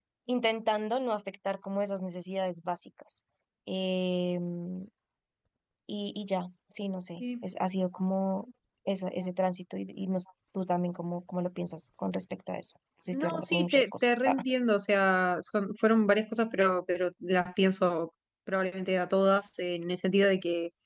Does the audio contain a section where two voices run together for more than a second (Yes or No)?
Yes